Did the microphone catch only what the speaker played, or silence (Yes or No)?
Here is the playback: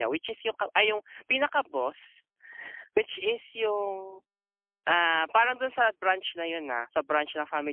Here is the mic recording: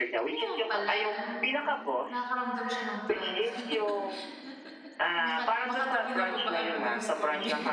No